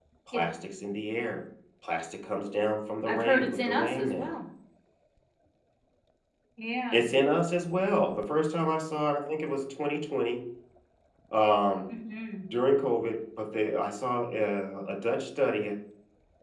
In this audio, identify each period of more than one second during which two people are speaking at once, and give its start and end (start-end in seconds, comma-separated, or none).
3.1-4.3